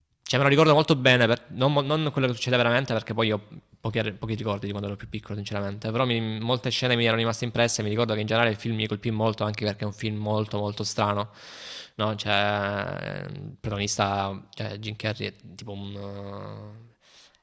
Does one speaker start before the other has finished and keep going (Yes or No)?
No